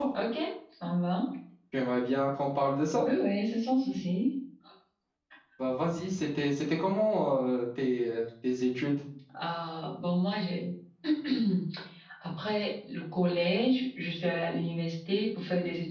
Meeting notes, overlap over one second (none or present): none